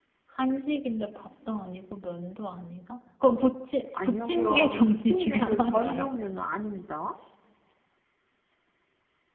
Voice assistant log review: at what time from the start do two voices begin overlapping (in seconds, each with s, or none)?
3.9 s